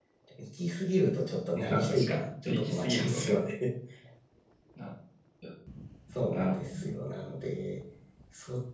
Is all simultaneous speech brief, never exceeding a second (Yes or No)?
No